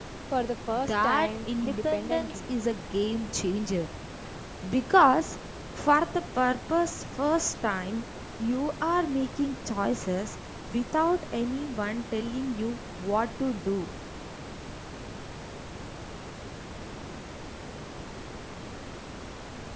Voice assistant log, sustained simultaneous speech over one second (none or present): present